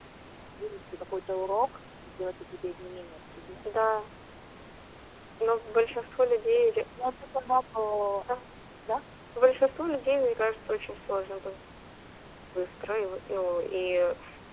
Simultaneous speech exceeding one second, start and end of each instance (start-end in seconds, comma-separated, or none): none